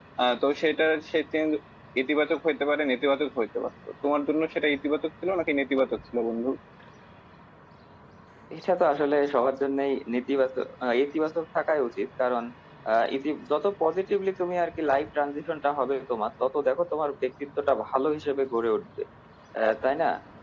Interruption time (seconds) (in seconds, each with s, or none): none